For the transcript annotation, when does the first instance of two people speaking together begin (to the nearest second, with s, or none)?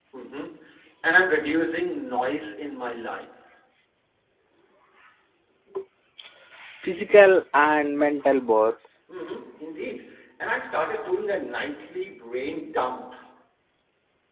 none